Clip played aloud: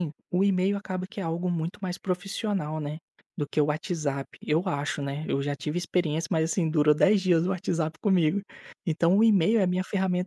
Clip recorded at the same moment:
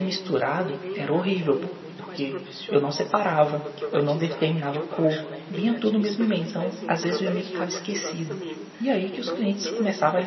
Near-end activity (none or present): present